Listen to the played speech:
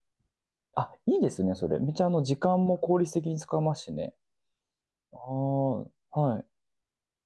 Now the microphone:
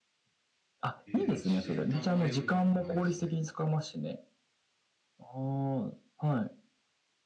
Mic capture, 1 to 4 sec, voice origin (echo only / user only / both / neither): both